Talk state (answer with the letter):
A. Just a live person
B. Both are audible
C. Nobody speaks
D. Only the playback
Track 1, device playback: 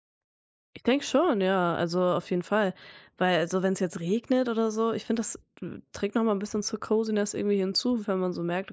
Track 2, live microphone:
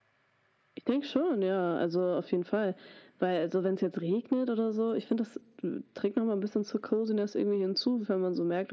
D